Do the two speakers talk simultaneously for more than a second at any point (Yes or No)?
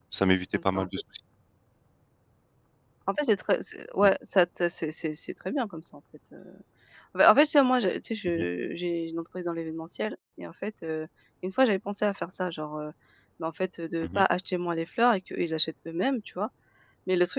No